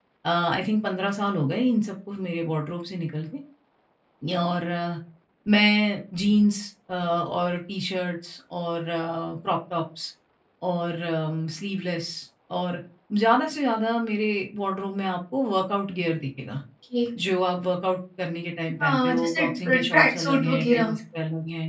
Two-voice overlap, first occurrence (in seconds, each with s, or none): 18.8 s